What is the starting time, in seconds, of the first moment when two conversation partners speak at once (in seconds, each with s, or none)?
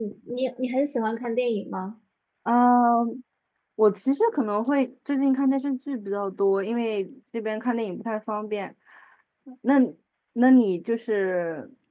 none